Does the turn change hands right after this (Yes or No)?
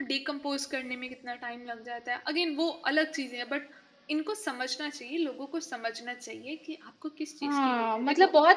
Yes